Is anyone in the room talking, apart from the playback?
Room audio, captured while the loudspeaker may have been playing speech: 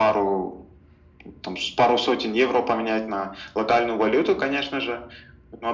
No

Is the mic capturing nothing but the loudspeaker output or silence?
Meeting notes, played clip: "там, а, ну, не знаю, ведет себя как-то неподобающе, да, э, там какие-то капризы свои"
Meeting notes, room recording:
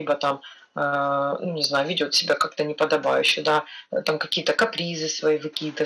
Yes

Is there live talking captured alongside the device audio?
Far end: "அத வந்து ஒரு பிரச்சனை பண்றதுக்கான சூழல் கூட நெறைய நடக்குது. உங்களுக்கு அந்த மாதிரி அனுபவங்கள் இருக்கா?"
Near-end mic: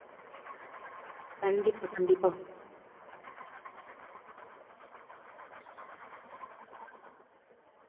Yes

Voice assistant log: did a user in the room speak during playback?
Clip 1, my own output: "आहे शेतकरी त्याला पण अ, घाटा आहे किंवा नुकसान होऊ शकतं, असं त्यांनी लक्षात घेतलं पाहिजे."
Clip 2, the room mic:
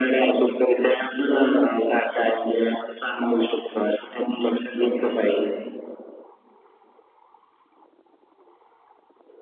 No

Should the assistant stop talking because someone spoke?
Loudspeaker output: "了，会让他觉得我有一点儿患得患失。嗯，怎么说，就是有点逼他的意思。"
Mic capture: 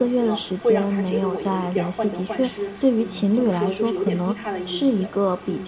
Yes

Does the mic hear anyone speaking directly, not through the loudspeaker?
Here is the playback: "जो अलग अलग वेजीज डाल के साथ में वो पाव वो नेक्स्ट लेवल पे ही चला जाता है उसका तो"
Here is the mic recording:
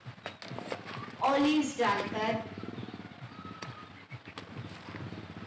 Yes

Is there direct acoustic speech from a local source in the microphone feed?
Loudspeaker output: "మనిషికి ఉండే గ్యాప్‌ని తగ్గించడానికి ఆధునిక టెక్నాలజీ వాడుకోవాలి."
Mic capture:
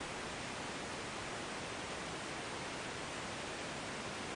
No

